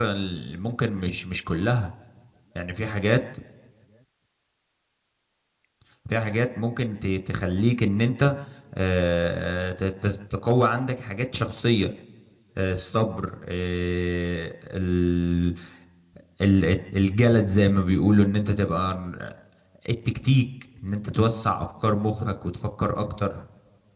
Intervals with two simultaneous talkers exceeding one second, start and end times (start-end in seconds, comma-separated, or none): none